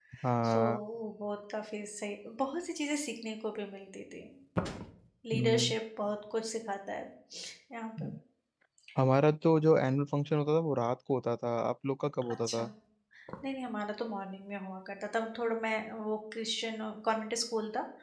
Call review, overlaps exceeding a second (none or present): none